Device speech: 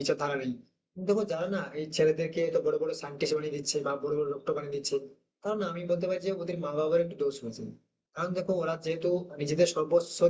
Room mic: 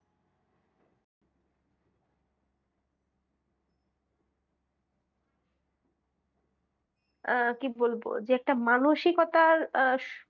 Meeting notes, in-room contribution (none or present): present